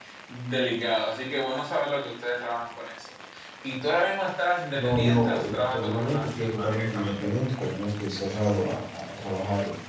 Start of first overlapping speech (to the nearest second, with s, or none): 5 s